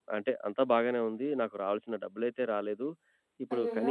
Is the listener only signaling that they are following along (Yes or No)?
Yes